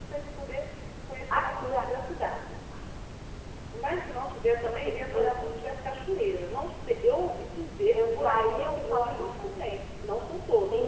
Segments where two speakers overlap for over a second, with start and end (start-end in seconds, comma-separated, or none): 7.9-9.8